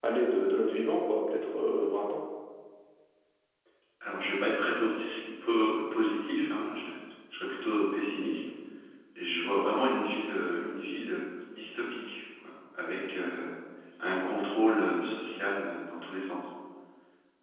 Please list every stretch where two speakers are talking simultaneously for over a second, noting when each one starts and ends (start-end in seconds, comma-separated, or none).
none